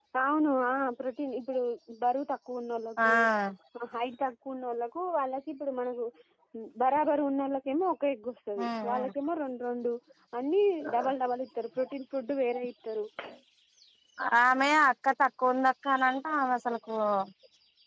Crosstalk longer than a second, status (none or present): none